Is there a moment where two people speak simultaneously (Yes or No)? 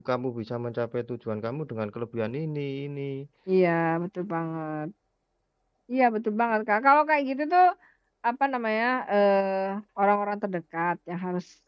No